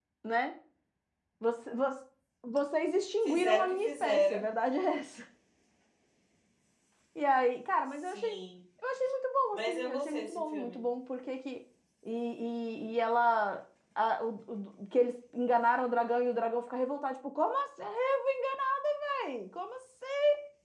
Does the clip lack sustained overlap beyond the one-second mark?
No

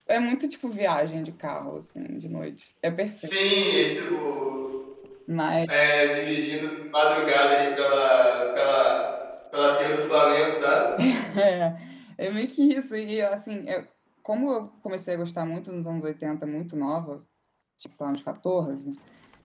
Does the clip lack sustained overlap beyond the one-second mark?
Yes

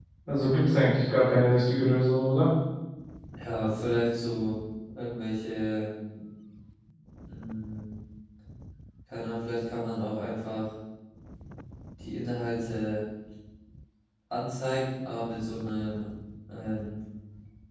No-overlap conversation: Yes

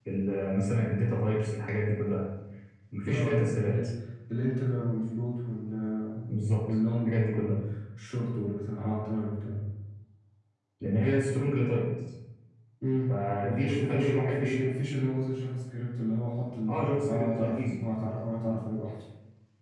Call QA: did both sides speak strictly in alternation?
No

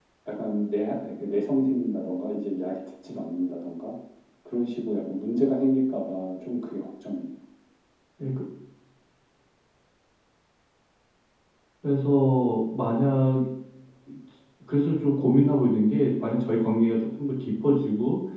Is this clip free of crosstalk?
Yes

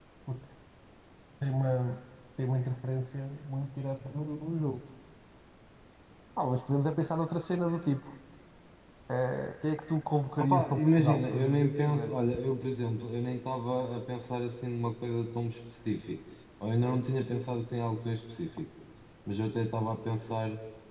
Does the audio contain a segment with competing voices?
Yes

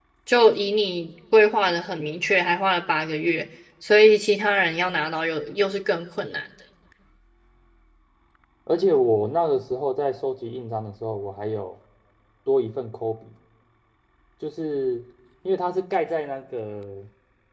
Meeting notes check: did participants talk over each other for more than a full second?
No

